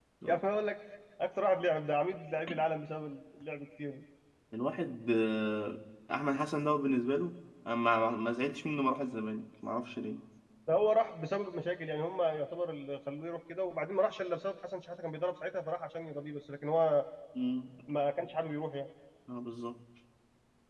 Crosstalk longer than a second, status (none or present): none